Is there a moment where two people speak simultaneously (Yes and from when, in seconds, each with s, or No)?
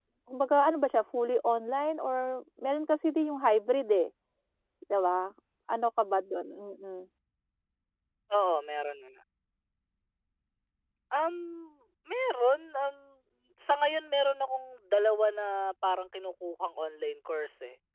No